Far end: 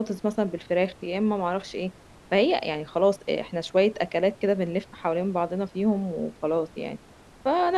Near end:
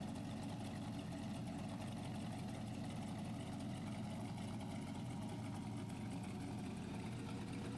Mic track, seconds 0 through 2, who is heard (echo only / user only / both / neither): neither